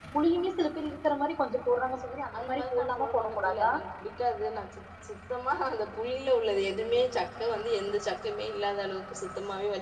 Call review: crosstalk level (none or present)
present